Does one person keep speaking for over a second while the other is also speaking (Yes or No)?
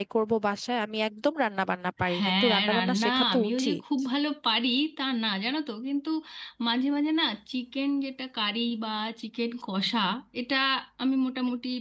Yes